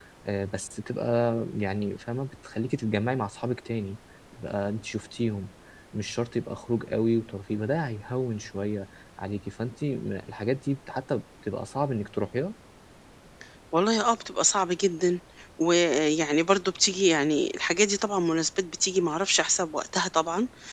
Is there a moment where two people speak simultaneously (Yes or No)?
No